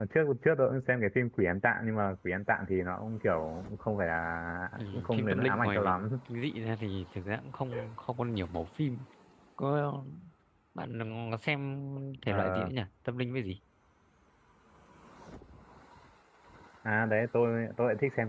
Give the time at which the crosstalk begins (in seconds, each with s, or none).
4.8 s